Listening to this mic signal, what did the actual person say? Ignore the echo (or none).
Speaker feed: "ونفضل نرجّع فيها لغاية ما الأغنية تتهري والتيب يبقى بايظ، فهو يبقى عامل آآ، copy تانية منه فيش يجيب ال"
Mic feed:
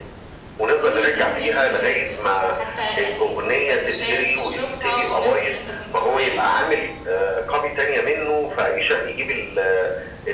بكل الجَو اللي فيه، ب حتى ال كوباية الشاي اللي بتشربها والناس اللي أنت كنت معاها،